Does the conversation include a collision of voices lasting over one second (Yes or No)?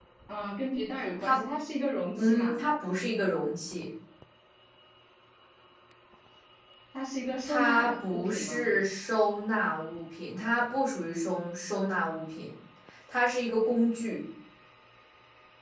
Yes